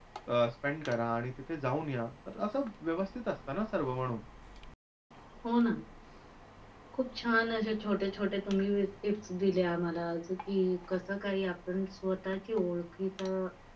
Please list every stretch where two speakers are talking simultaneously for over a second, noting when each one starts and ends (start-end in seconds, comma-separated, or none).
none